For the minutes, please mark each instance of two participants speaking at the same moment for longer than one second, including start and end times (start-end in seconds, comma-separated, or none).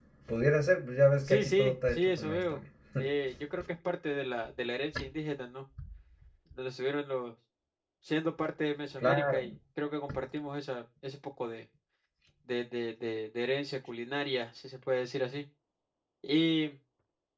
1.2-2.6